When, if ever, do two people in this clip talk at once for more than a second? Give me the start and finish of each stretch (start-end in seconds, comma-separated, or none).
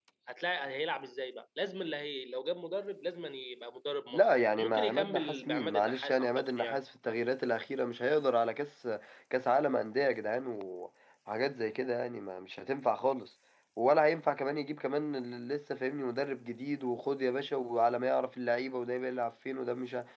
4.1-6.8